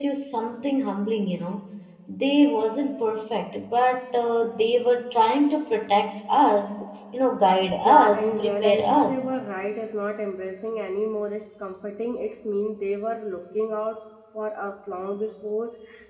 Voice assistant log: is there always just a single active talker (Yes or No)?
No